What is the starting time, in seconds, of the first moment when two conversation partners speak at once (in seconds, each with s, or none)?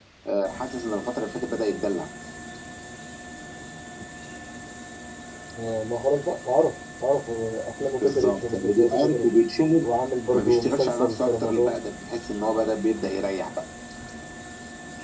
8.0 s